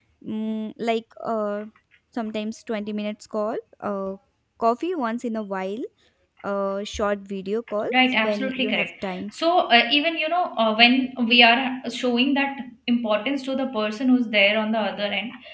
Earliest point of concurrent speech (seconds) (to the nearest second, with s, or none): 8 s